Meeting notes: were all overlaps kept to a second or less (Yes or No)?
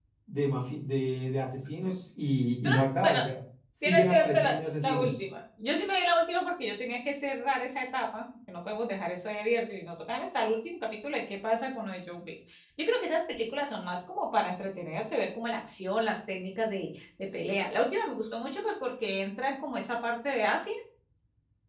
No